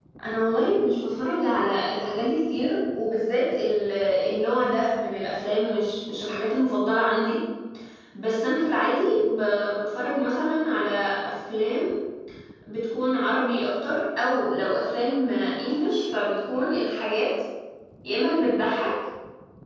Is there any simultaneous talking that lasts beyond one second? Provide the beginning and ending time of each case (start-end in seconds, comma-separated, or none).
none